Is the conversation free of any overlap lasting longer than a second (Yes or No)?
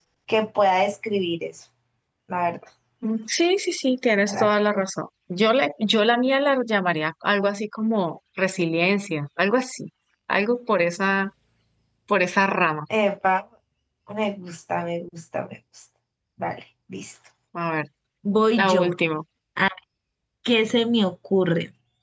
Yes